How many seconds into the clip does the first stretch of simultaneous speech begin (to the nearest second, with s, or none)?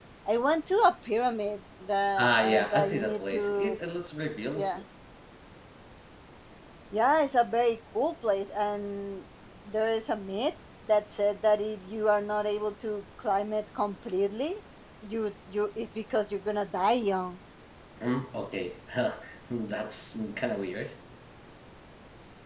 2 s